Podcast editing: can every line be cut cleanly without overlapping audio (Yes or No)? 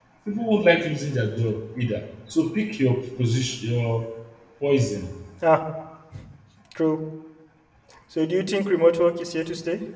Yes